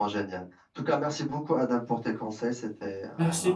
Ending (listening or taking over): taking over